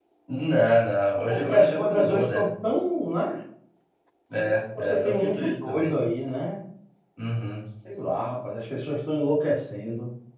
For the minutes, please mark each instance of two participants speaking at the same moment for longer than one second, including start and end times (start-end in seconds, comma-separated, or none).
1.3-2.5, 4.4-6.0